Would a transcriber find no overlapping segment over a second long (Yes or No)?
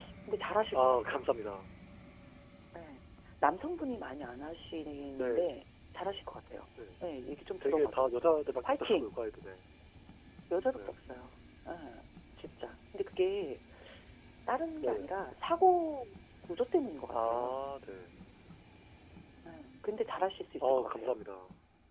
Yes